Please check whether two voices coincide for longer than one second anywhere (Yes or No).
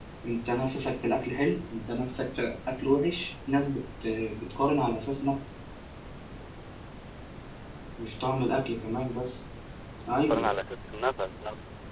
No